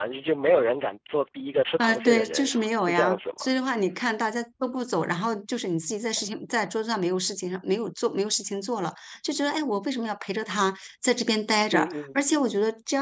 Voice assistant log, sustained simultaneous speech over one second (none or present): present